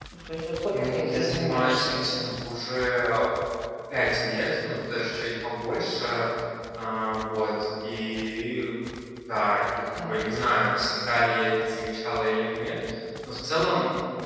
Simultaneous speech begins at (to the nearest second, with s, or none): 1 s